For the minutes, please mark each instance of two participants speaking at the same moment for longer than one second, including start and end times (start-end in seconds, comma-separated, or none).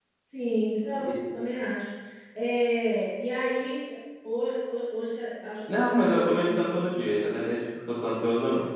5.7-6.9